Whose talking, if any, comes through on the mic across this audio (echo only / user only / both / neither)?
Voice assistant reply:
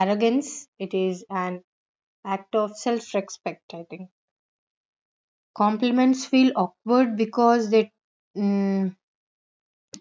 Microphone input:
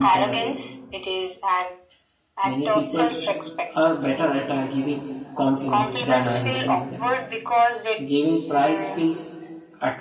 both